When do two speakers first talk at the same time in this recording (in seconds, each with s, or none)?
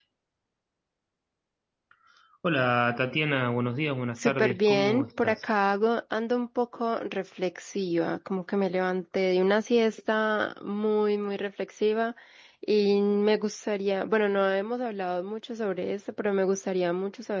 4.2 s